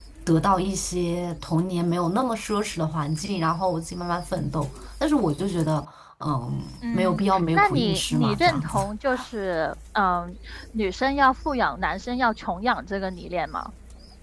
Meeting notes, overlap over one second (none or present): present